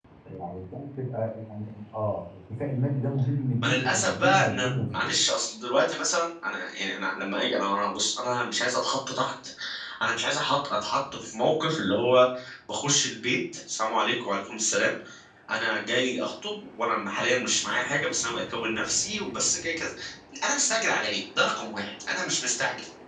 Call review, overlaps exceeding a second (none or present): present